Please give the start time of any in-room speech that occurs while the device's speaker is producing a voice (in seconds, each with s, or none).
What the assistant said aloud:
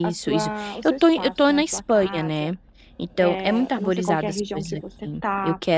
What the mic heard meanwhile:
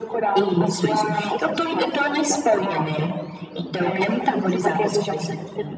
none